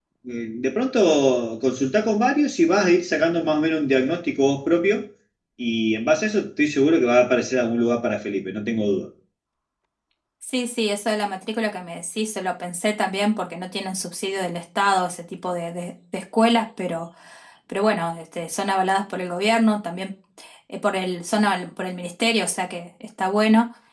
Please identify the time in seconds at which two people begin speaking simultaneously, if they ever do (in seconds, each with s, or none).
none